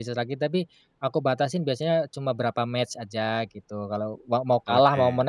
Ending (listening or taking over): listening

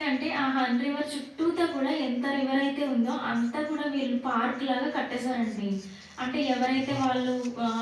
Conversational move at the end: listening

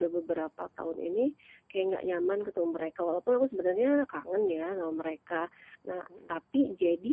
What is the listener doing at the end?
listening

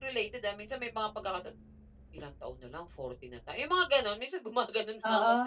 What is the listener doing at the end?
taking over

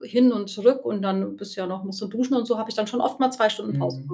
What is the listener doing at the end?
taking over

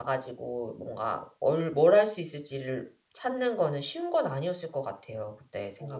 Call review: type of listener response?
listening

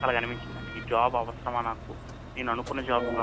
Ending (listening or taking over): listening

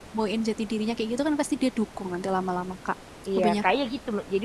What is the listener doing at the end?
taking over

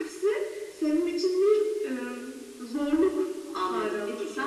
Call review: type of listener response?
taking over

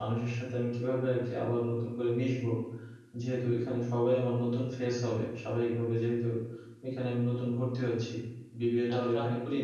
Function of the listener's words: listening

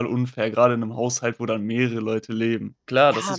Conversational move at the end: taking over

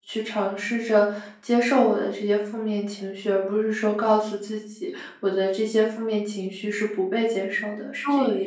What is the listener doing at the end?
taking over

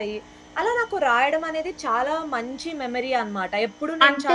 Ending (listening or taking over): taking over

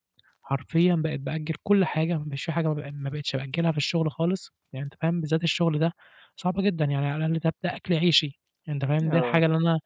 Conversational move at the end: listening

